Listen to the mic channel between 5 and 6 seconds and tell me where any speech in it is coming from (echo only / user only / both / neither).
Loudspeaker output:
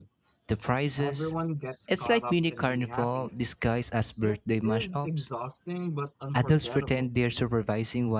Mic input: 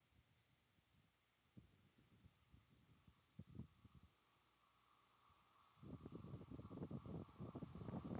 neither